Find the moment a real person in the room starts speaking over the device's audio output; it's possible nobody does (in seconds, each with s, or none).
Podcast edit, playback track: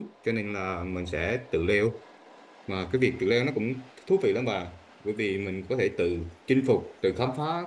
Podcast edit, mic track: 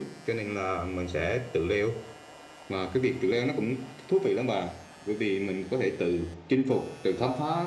none